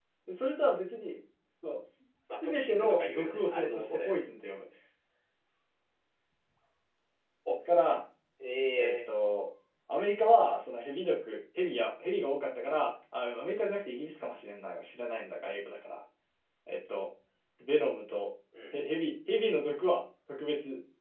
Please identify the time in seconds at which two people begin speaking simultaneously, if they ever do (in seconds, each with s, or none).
2.4 s